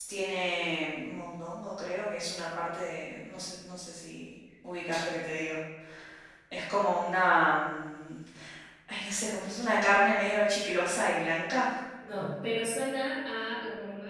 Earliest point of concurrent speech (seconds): none

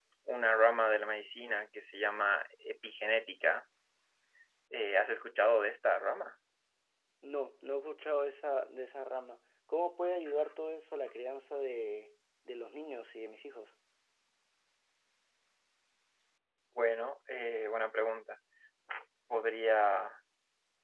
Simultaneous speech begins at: none

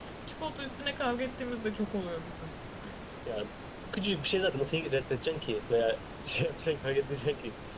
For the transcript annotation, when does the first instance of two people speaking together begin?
none

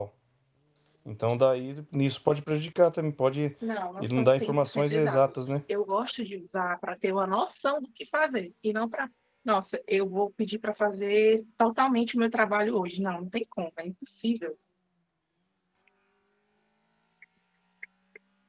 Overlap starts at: 4.0 s

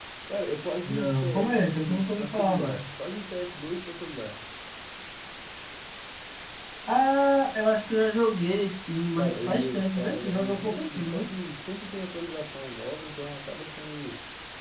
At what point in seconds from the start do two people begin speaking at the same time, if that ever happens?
0.8 s

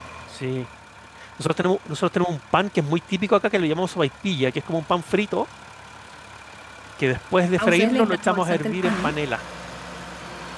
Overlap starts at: 7.6 s

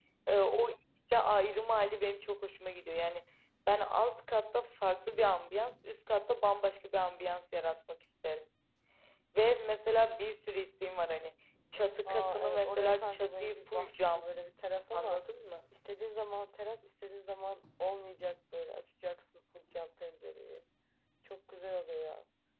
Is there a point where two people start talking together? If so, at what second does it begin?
12.1 s

